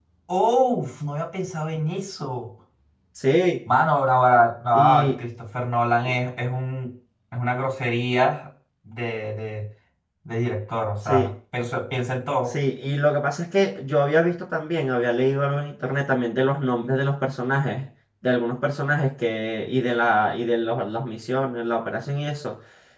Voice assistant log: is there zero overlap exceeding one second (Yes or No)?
Yes